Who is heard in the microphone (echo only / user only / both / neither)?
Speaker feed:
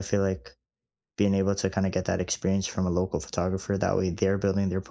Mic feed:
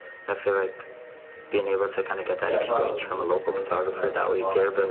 both